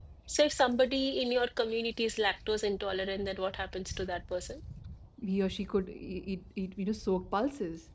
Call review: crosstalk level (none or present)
none